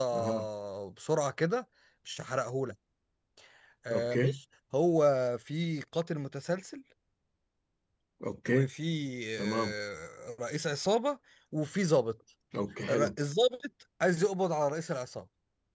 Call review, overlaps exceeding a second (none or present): none